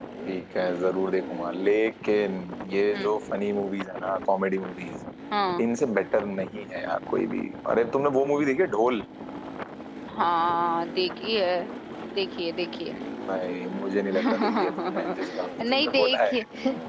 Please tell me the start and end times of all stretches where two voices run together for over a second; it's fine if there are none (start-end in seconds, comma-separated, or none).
14.1-16.3